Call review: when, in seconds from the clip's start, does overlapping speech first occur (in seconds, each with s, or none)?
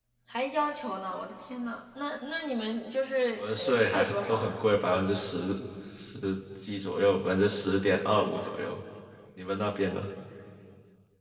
3.3 s